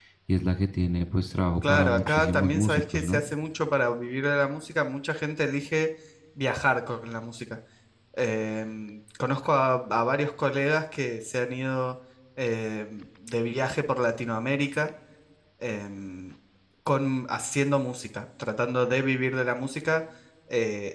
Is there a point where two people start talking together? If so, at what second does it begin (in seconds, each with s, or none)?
1.6 s